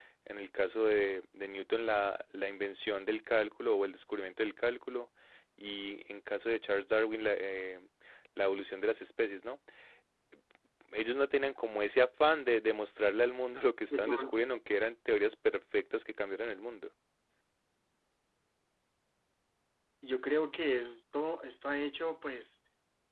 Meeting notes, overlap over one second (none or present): none